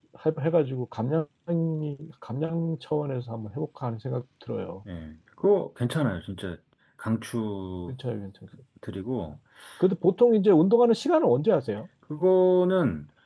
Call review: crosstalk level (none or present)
none